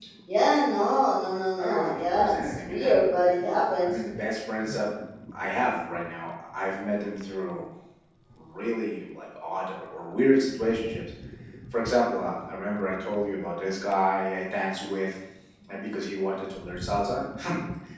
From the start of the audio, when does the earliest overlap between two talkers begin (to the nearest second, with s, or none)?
2 s